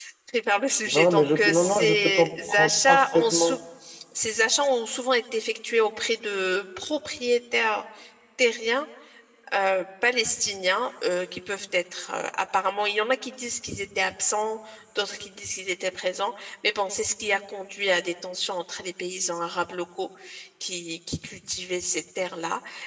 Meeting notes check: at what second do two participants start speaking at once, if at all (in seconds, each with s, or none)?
0.9 s